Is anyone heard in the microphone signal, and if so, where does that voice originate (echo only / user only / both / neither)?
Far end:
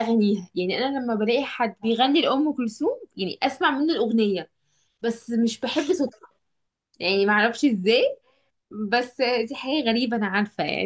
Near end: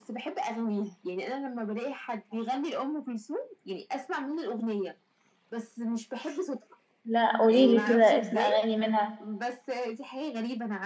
both